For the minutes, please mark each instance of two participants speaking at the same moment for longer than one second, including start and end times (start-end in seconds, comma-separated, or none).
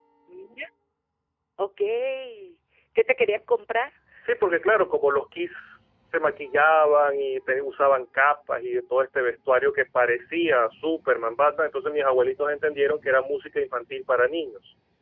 none